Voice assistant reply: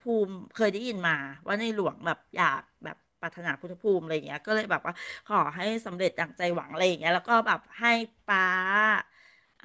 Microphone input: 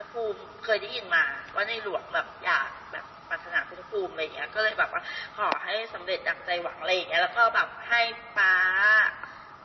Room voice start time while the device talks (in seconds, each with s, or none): none